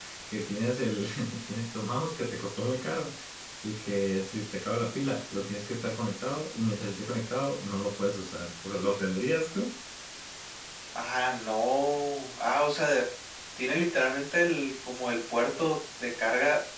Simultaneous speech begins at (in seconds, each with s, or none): none